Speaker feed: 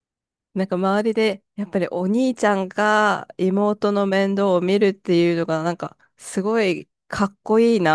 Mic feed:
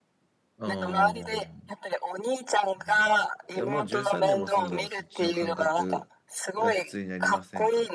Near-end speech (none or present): present